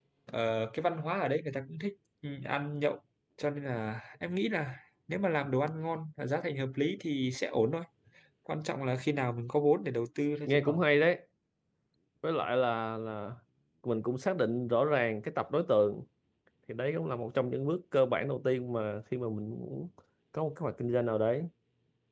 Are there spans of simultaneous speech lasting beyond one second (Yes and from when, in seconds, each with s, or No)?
No